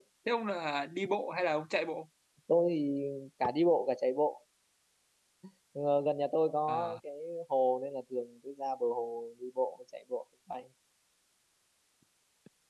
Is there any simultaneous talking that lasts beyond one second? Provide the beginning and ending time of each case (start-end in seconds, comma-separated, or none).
none